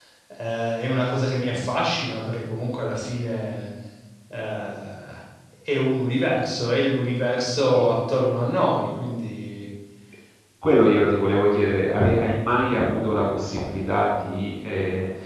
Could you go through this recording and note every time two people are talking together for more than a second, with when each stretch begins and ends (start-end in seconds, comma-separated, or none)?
none